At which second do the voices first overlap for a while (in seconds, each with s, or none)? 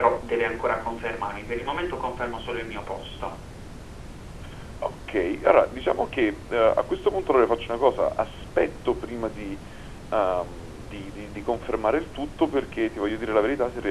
none